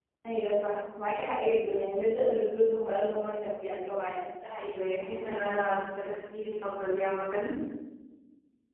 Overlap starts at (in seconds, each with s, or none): none